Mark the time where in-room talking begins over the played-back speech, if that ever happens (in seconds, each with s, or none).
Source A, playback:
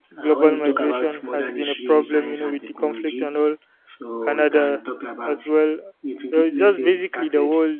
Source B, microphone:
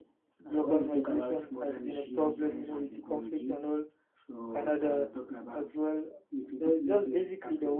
none